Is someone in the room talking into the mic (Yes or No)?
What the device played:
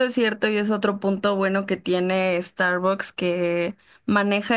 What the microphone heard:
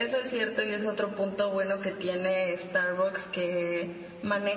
No